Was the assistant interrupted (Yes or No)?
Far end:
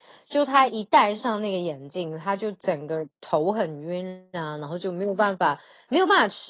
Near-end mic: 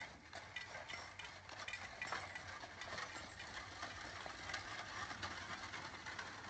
No